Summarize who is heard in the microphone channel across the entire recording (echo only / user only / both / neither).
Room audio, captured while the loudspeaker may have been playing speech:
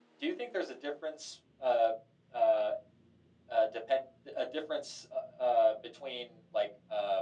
echo only